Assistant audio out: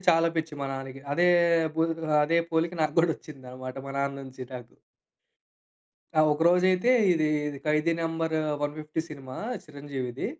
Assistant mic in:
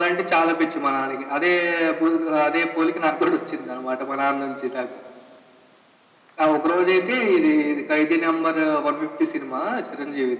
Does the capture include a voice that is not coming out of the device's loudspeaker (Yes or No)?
No